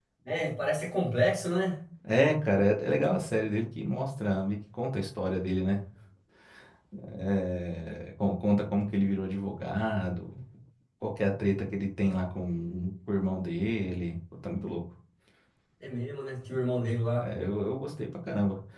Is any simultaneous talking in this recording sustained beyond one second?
No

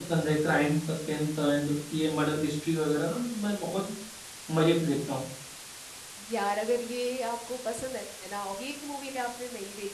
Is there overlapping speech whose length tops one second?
No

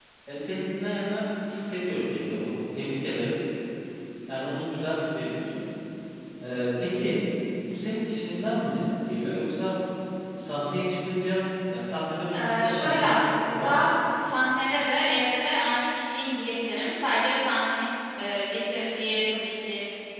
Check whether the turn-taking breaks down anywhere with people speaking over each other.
Yes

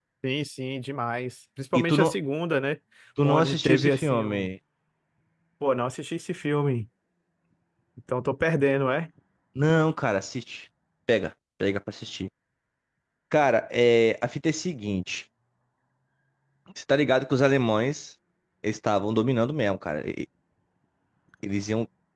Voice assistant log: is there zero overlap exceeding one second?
No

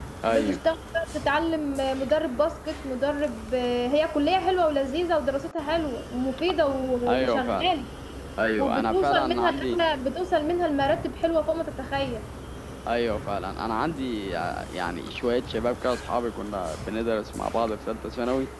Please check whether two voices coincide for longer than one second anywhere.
Yes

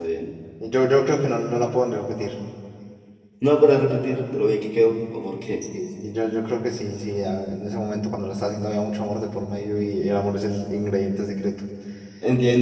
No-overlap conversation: Yes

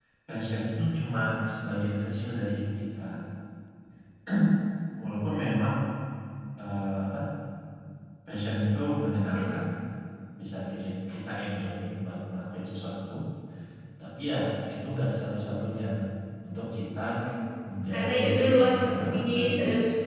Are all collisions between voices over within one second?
No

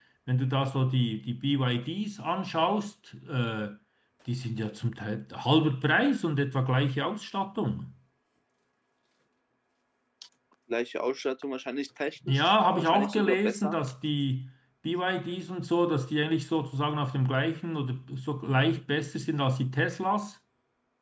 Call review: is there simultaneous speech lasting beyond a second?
Yes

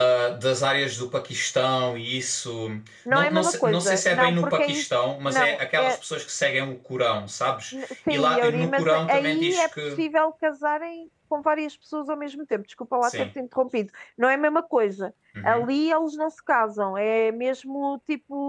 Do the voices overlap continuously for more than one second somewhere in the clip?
Yes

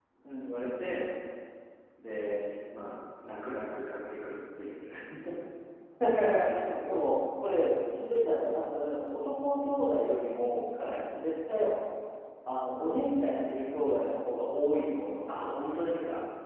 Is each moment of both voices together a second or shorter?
Yes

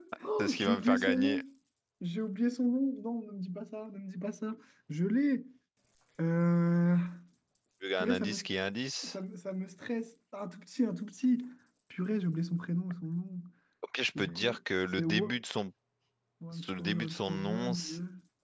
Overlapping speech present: Yes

